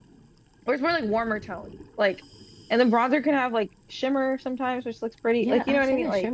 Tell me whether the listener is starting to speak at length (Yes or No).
Yes